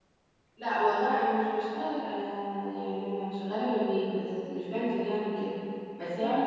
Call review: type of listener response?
listening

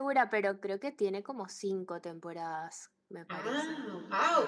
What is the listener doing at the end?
taking over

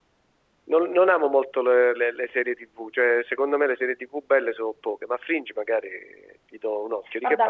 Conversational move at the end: taking over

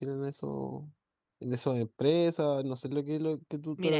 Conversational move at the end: taking over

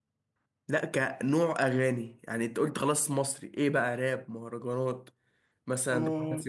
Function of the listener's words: taking over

